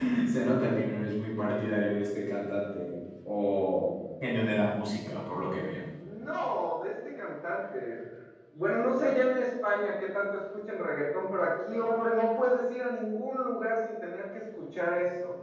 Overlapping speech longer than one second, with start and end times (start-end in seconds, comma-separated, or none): none